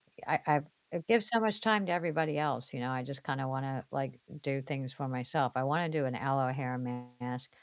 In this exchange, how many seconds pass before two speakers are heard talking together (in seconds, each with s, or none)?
none